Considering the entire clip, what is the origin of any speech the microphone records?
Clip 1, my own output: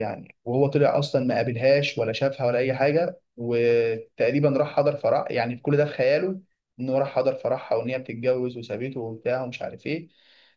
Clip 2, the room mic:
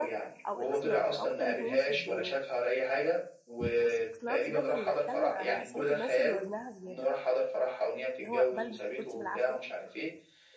both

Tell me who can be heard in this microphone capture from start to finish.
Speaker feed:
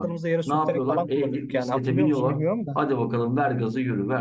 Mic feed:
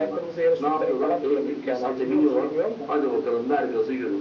echo only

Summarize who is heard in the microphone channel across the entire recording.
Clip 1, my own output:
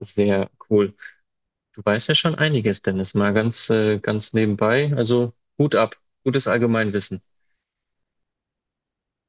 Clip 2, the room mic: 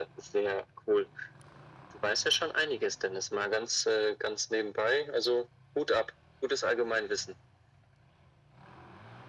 echo only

